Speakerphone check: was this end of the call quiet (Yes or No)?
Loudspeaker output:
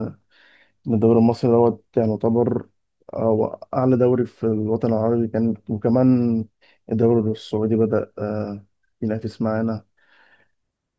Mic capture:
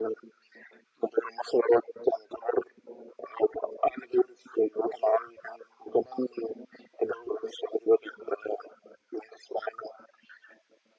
Yes